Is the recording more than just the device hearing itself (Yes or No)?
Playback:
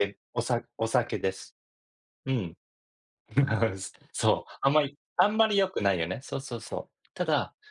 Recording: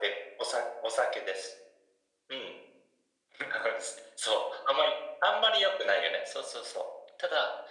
No